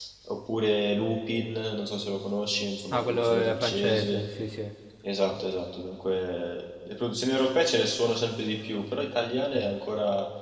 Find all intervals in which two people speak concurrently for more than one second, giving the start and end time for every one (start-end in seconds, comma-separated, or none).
2.9-4.3